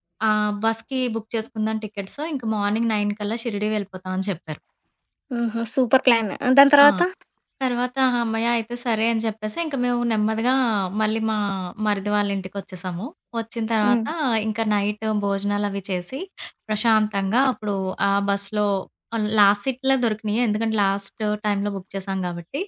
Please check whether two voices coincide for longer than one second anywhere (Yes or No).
No